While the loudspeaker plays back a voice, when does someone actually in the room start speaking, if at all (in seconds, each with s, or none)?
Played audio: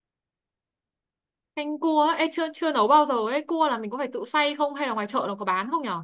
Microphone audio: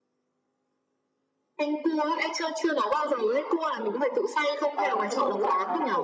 4.7 s